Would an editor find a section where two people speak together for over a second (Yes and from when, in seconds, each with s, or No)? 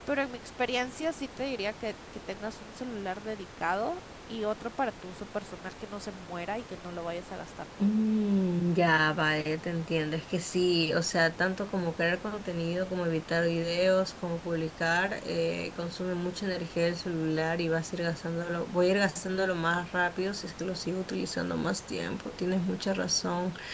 No